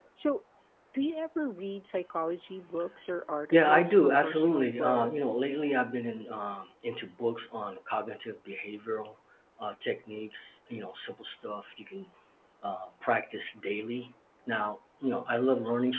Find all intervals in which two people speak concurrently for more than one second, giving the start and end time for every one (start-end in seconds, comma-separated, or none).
3.5-5.1